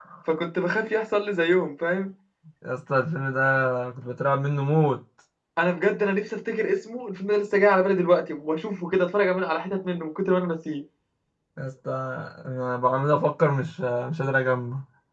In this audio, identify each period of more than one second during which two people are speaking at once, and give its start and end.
none

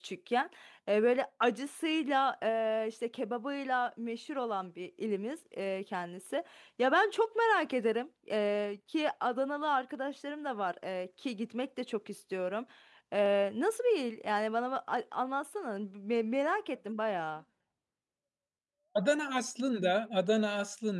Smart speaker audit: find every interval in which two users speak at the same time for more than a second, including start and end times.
none

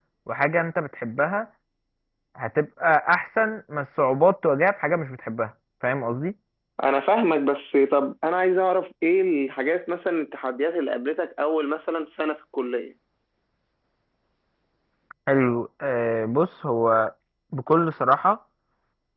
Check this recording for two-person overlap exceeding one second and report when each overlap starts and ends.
none

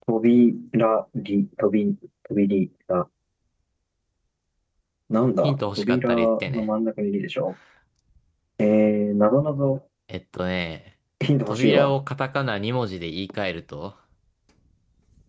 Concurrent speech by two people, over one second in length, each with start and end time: 5.4-6.7

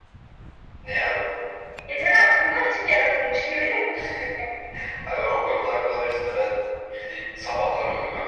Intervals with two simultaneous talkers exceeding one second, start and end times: none

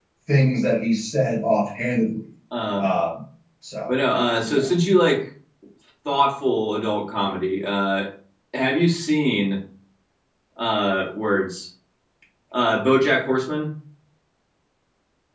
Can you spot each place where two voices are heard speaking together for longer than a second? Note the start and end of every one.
none

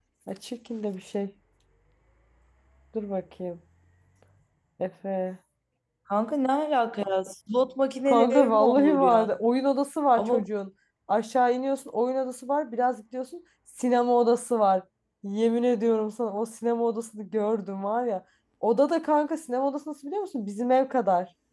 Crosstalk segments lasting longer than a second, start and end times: 8.1-9.3

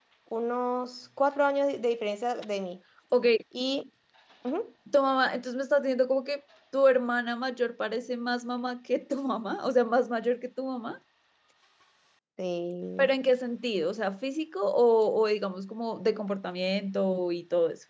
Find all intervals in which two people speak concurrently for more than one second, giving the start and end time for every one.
none

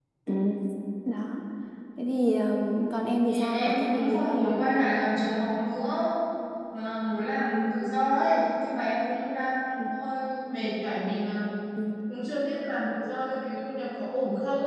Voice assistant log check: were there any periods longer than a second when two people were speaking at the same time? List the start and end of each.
3.3-4.5

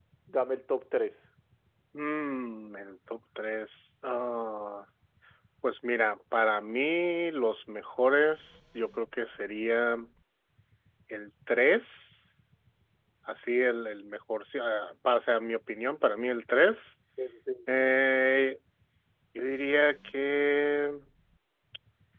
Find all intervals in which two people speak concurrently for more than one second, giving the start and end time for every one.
none

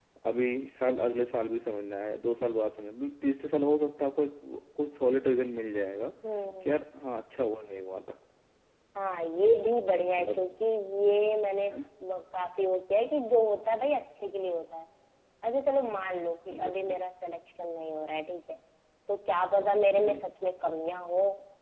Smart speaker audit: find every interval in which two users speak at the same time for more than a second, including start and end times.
none

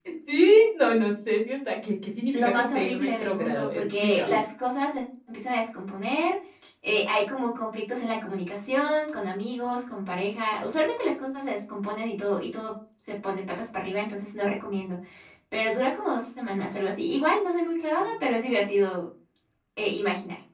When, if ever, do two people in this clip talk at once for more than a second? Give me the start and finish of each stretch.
2.3-4.4

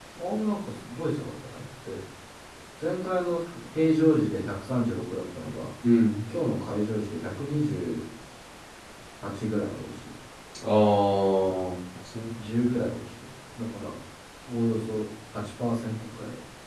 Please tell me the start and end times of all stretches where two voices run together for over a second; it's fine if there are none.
none

